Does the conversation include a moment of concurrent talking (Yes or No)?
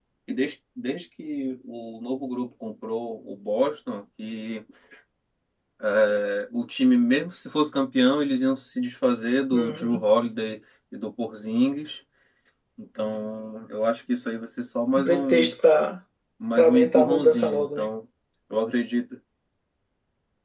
Yes